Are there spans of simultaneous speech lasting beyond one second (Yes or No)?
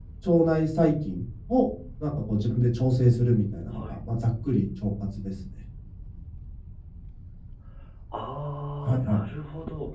No